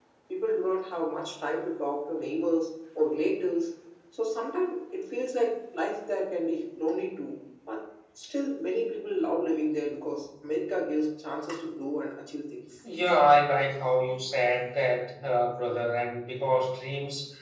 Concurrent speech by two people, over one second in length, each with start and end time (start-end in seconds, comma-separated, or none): none